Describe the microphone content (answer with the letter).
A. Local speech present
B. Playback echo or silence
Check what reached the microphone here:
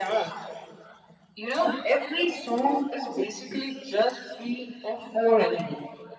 B